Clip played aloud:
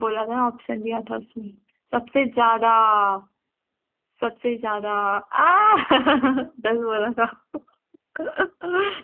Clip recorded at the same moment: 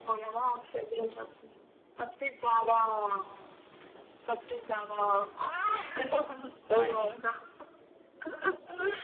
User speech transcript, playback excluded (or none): आए